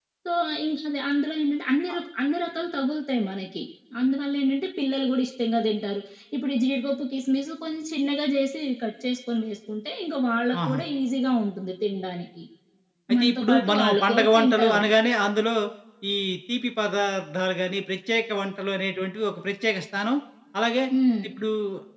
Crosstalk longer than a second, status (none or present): present